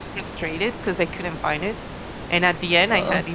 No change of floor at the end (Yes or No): Yes